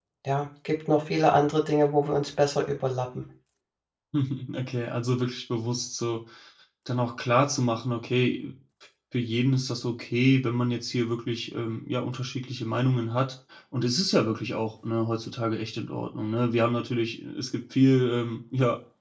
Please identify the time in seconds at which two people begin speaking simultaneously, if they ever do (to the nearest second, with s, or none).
none